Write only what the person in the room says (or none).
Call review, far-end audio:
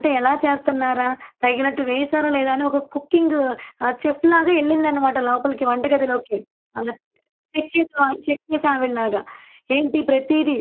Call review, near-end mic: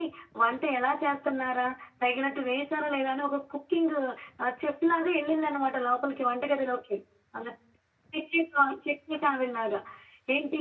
none